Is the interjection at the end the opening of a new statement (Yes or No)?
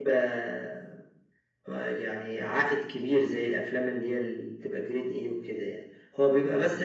No